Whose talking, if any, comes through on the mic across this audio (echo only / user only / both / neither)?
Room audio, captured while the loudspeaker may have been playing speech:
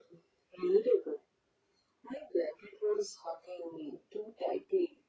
echo only